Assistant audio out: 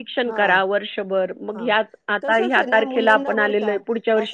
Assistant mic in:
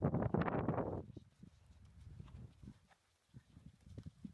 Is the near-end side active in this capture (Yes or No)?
No